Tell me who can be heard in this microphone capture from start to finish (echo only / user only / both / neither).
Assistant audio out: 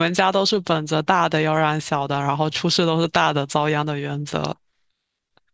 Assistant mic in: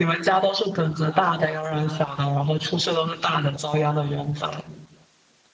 echo only